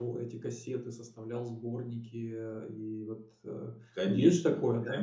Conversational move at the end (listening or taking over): taking over